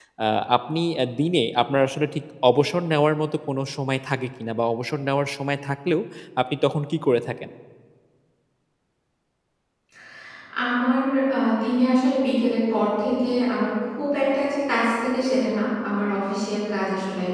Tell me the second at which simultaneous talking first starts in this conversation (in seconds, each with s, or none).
none